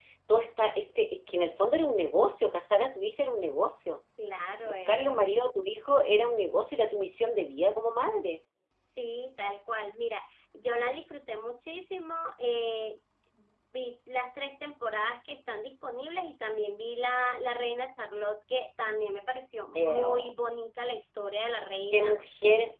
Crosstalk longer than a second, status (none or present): none